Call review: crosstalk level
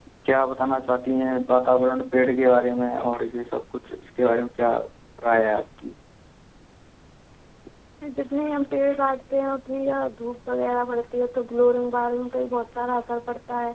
none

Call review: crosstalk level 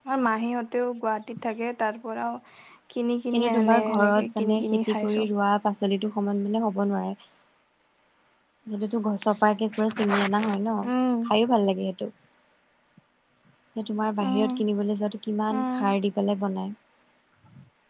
present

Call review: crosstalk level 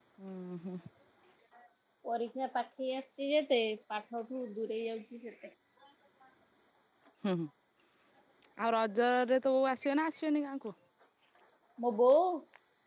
none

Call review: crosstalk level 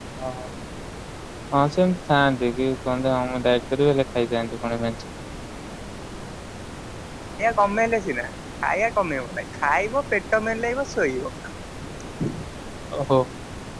none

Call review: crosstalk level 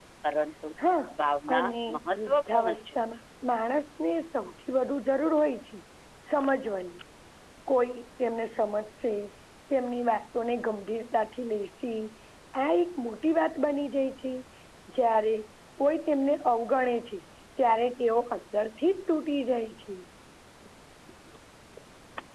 present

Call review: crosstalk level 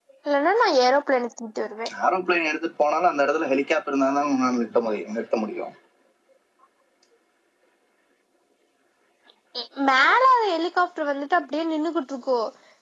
none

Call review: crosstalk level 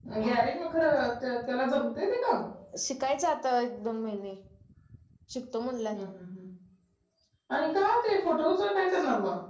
none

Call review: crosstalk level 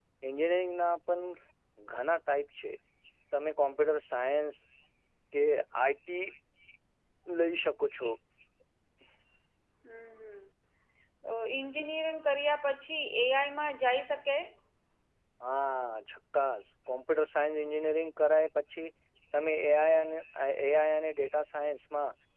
none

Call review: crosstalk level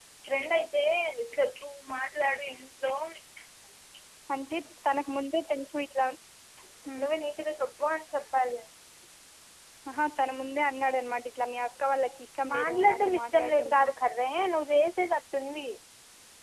present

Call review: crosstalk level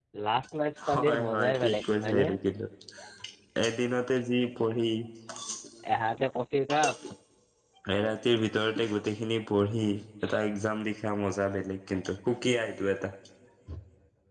present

